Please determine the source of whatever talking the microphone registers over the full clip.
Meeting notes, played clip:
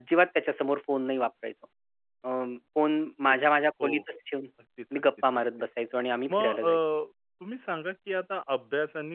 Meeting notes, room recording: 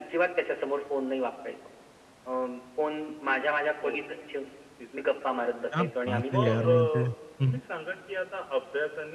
both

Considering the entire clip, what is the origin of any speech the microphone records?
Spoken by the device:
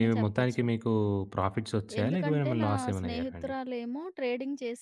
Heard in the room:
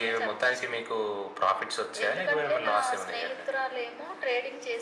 echo only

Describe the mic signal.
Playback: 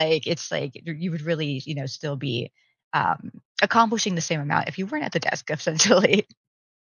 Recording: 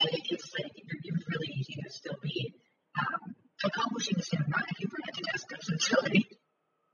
echo only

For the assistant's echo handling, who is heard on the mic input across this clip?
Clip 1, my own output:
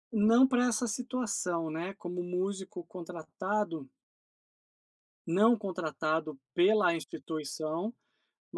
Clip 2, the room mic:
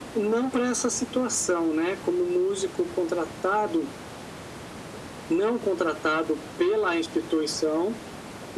echo only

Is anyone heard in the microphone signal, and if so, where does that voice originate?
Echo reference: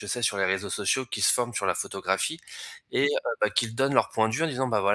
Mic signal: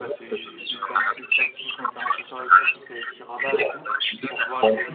both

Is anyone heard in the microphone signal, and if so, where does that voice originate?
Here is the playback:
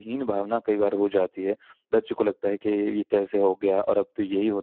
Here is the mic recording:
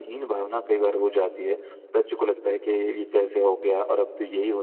echo only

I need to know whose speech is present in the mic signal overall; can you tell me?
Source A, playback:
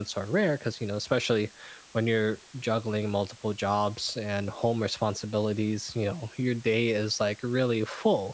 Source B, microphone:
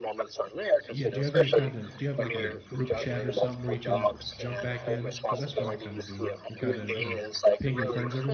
both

